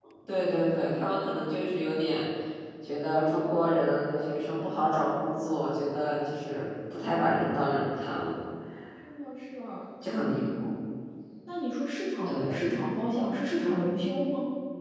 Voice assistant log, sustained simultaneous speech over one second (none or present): none